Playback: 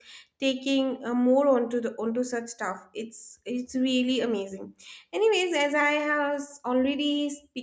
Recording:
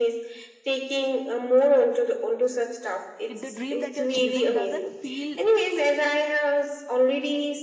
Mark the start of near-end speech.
3.3 s

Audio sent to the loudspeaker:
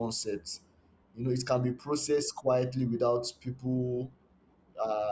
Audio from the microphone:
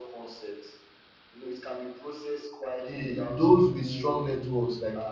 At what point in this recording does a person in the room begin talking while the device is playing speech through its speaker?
2.8 s

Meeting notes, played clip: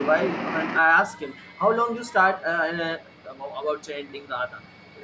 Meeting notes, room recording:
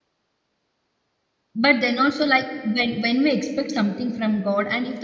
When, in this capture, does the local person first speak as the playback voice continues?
1.5 s

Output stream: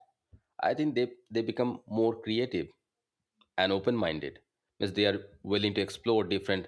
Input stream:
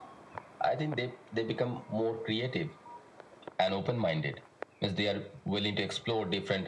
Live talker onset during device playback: none

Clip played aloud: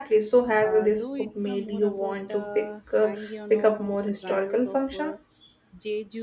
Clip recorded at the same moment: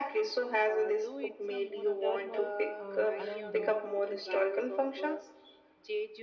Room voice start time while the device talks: 2.0 s

